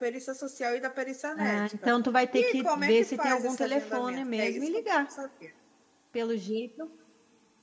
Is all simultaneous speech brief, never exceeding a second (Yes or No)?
No